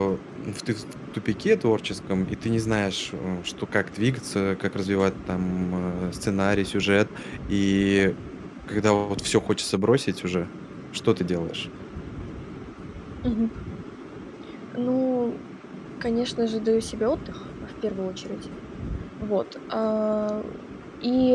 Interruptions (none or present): none